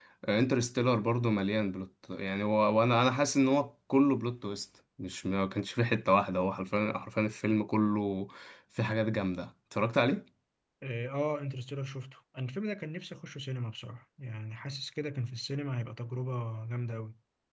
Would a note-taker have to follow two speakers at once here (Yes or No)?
No